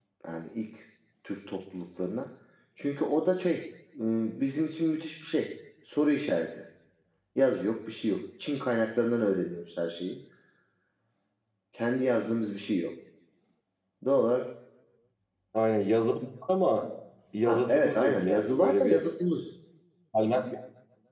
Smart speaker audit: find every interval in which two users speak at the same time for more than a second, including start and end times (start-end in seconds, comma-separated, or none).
17.4-19.0